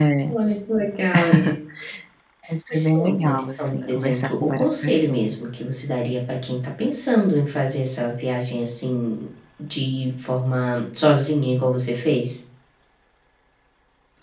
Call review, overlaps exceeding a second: present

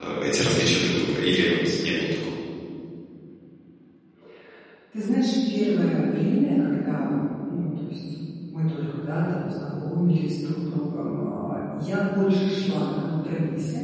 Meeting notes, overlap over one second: none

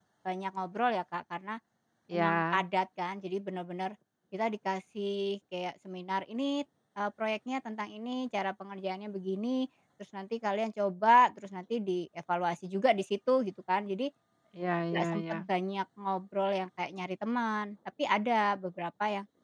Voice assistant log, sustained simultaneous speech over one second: none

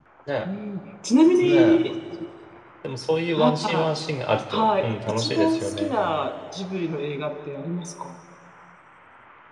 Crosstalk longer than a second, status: present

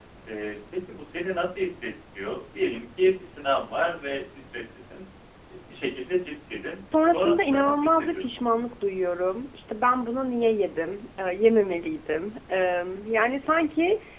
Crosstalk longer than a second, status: present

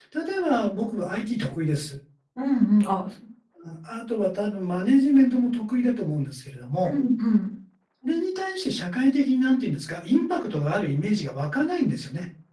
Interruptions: none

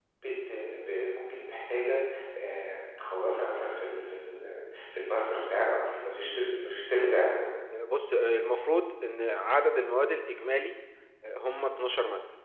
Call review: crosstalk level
none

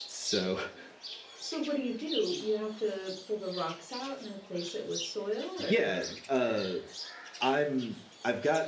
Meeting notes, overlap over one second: none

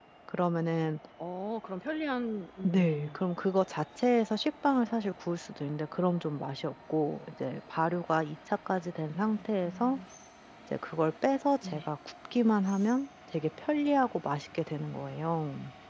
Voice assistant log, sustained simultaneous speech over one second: none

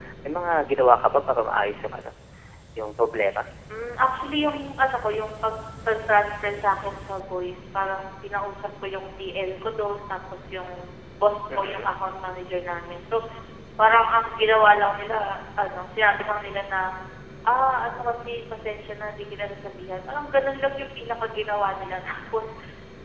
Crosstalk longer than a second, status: none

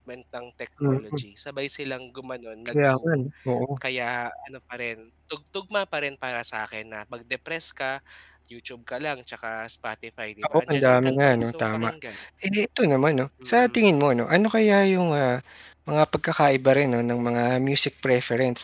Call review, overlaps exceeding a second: present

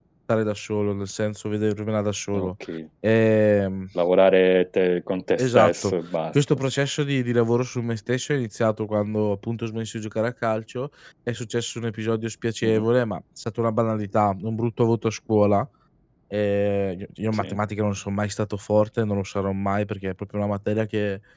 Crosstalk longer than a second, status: none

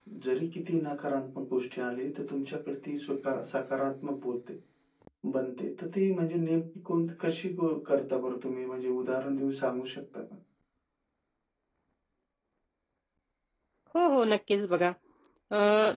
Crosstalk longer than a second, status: none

